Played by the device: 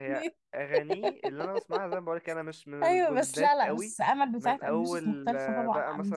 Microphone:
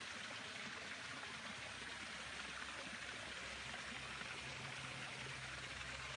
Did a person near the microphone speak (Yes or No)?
No